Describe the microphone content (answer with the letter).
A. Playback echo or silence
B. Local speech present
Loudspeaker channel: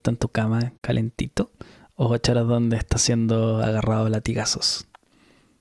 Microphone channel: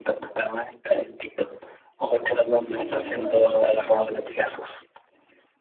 B